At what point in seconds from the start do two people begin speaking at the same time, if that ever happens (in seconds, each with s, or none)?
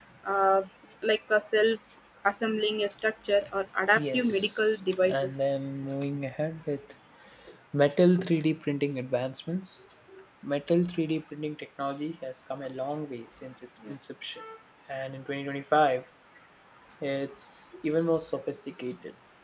4.0 s